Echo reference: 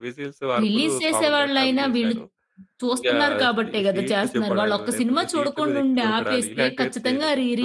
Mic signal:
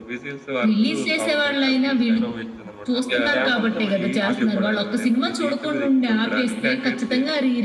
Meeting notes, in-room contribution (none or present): present